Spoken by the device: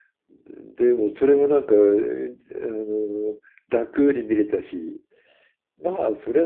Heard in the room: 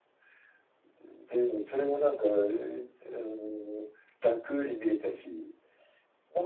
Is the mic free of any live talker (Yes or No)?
Yes